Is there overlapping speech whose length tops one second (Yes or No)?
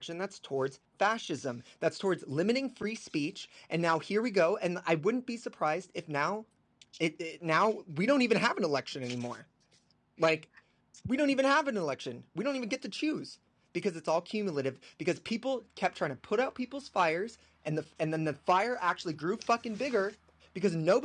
No